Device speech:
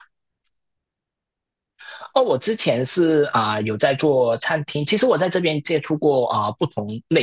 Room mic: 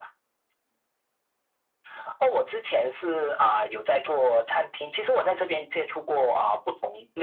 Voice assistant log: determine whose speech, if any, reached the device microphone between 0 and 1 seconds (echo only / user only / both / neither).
neither